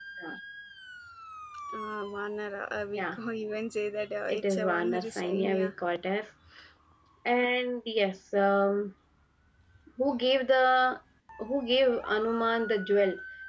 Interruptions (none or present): present